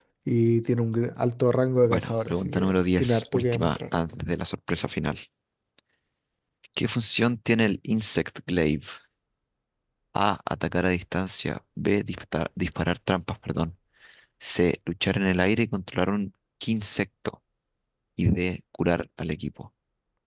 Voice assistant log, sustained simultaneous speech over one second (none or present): present